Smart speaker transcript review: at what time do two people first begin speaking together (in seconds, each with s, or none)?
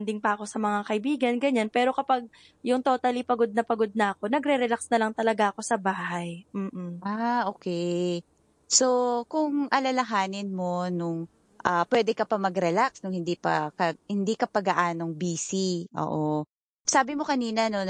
none